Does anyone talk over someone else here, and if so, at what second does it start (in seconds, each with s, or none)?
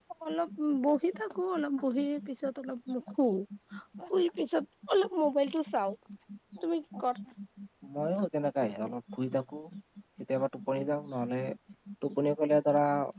none